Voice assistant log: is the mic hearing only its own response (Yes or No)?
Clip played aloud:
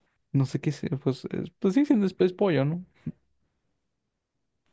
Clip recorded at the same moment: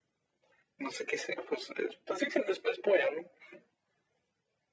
Yes